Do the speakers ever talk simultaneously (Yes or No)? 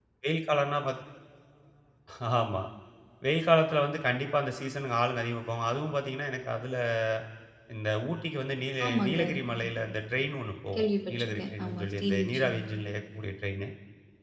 Yes